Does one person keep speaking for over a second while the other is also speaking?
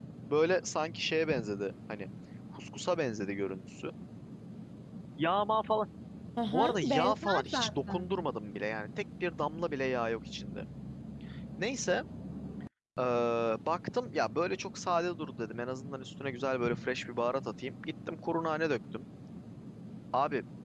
Yes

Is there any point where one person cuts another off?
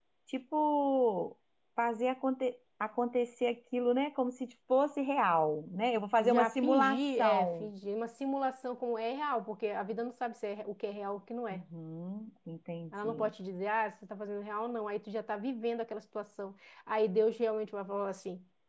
Yes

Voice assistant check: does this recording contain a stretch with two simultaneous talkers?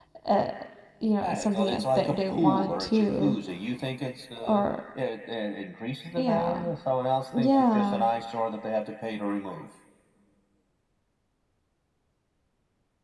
Yes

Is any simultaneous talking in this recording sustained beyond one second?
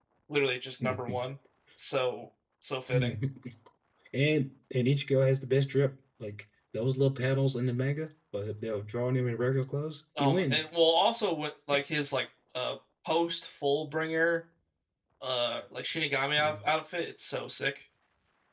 No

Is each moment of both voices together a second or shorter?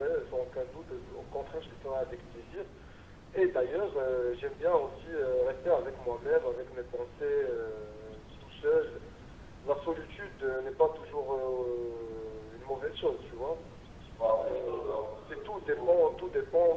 No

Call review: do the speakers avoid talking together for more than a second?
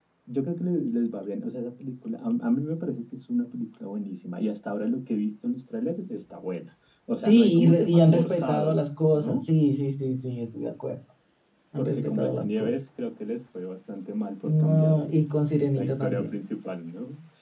No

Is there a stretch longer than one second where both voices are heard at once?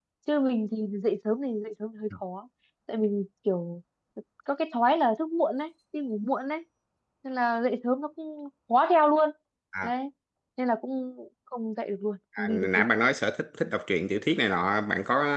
No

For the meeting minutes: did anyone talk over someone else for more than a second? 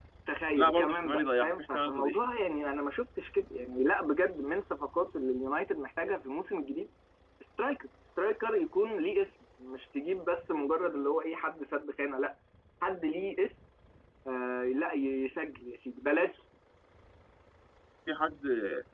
Yes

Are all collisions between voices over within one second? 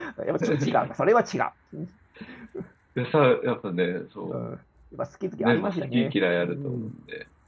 No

